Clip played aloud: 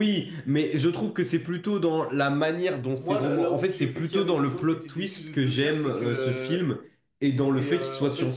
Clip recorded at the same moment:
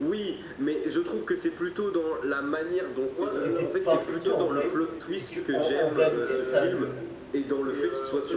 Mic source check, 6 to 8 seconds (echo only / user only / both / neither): both